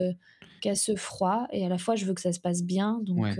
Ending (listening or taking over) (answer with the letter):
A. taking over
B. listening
A